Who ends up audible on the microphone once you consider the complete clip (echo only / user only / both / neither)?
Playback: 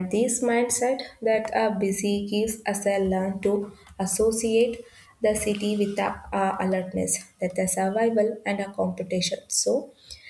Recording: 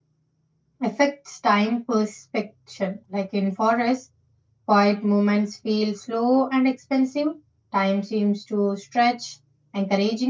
user only